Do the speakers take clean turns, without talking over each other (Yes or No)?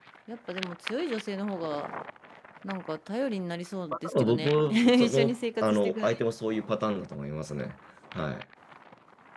No